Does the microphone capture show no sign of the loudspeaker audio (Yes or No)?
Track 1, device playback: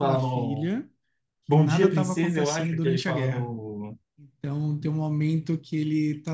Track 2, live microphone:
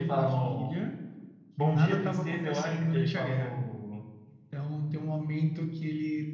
No